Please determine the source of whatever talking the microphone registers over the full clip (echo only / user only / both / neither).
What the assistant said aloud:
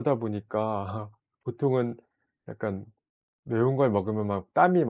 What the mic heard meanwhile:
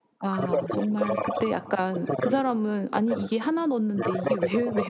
both